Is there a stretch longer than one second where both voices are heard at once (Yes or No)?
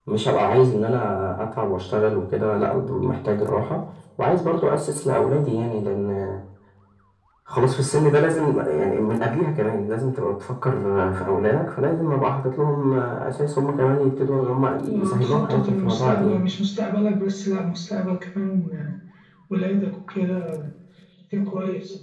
Yes